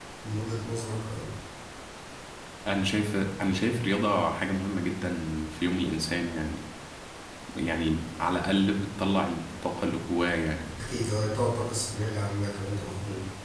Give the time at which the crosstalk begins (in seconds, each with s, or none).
none